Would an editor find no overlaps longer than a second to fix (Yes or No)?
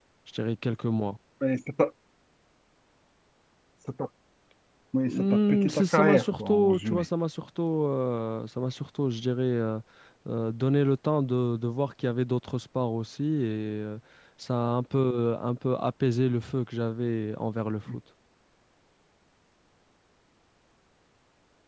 No